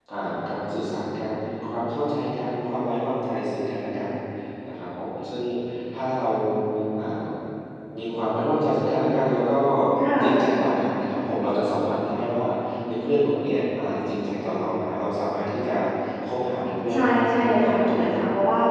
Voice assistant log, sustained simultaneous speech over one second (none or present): present